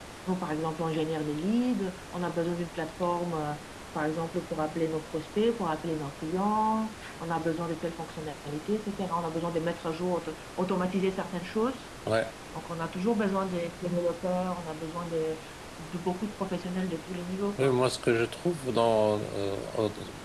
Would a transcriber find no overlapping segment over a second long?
Yes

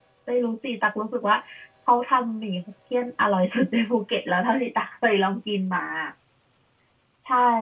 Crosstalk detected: No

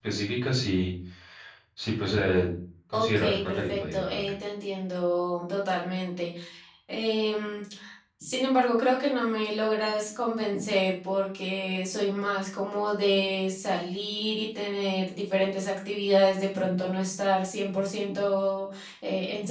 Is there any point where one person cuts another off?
Yes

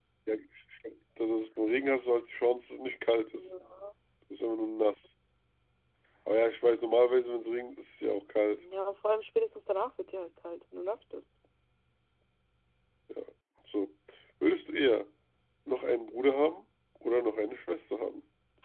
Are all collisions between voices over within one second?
Yes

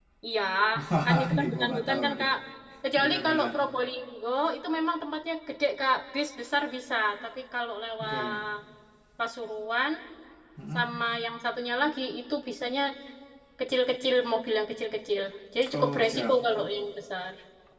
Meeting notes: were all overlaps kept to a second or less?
No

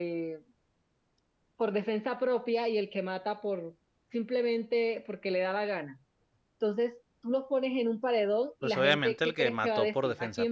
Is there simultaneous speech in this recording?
Yes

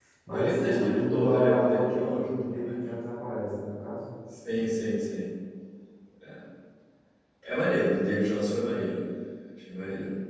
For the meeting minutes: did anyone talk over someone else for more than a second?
Yes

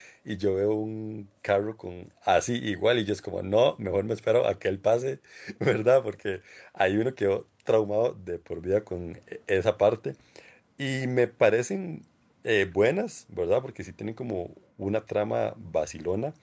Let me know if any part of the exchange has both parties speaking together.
No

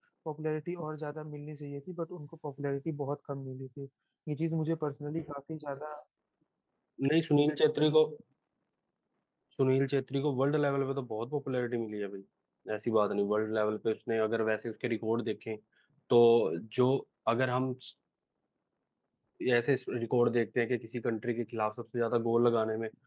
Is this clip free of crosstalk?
Yes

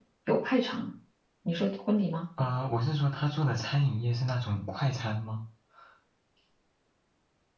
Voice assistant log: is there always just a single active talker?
Yes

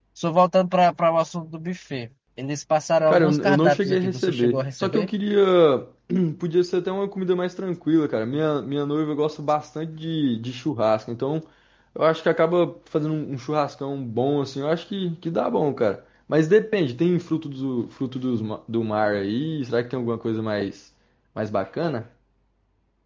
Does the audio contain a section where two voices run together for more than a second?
Yes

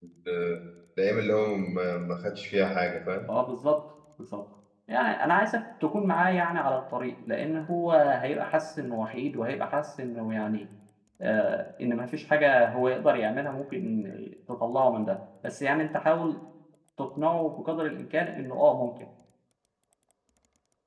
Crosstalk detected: No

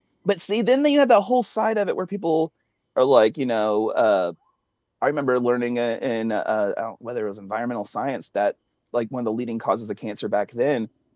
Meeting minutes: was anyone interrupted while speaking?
No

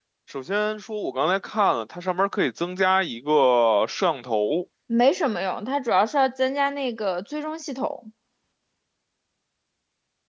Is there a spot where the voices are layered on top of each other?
No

